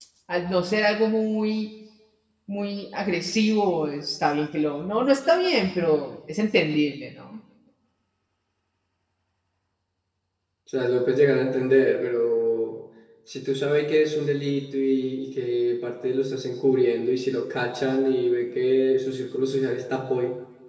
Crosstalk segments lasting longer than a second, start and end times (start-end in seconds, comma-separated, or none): none